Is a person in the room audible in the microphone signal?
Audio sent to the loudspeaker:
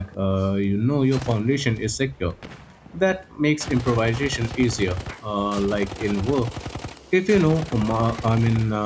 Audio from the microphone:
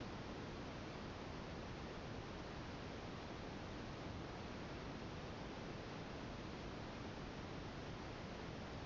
No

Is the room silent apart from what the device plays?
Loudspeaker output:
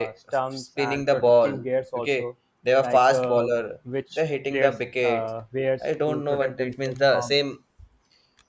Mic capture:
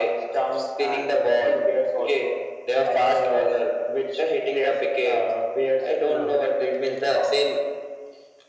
No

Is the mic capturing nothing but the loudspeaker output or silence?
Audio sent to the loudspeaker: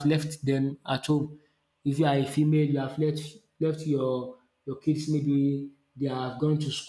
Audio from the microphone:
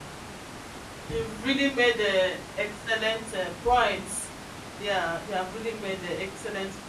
No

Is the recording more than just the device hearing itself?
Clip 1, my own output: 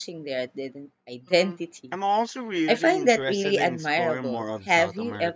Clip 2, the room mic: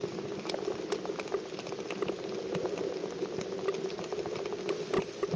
No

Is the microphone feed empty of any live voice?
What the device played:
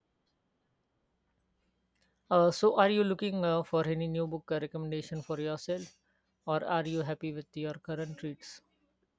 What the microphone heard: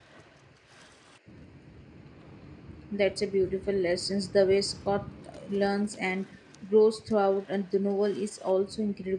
No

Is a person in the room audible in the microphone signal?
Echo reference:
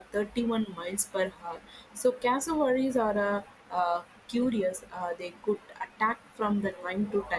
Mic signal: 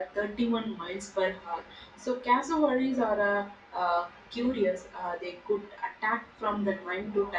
No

